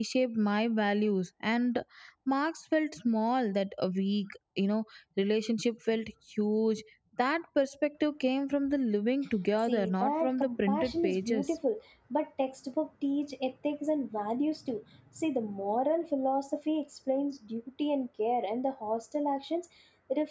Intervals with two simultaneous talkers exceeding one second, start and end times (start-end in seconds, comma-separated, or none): 9.6-11.4